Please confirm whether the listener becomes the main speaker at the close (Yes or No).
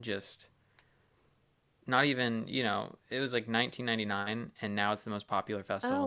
Yes